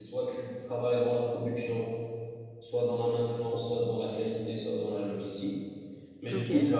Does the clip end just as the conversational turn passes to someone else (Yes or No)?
No